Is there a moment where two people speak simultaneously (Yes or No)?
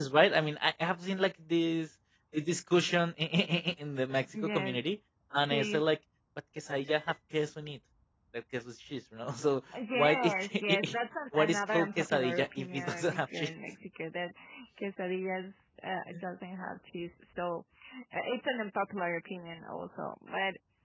Yes